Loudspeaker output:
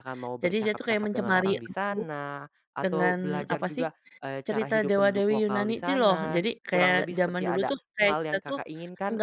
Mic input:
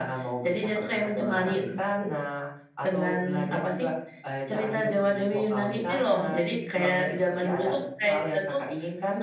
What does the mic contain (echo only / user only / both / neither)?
echo only